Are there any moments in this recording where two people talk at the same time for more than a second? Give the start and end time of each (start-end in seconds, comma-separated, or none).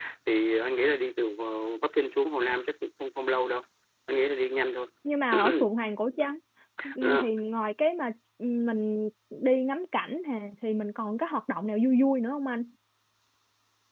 none